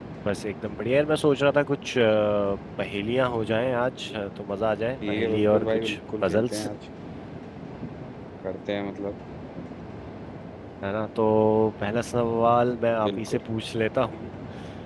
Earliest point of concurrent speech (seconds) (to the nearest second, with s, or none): 5 s